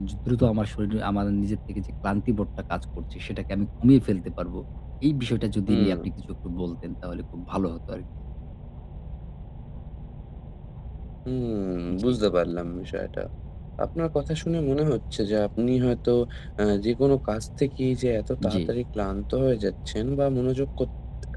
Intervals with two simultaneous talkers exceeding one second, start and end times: none

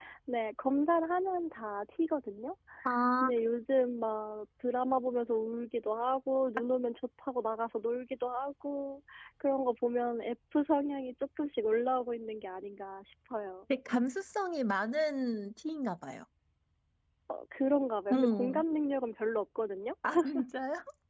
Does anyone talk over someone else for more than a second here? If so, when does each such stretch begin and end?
none

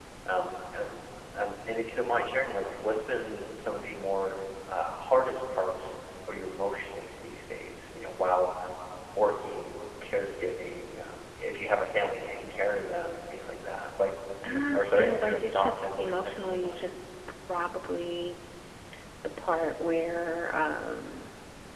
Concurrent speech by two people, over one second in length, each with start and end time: 14.4-16.9

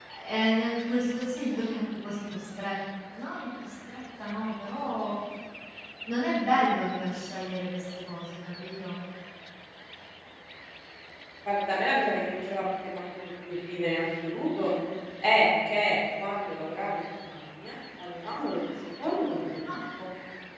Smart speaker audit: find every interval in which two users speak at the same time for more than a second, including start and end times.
none

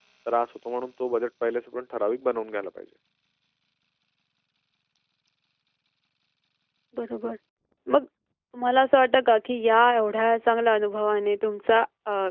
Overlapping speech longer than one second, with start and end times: none

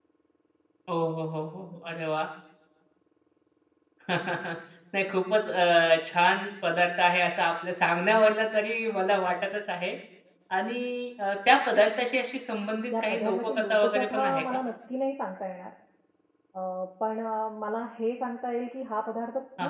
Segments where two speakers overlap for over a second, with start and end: 13.0-14.6

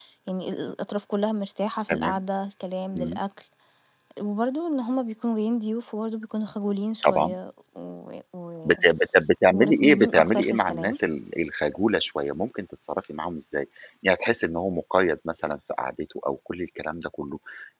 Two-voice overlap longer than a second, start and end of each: 9.5-11.0

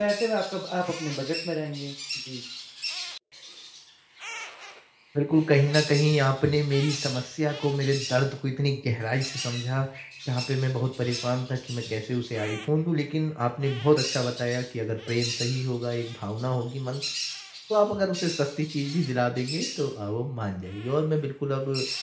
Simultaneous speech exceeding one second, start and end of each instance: none

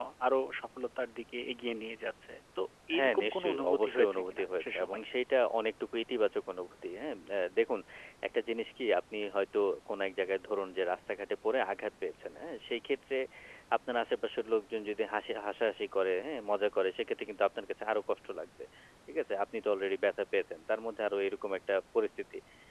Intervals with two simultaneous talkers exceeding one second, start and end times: 3.0-5.0

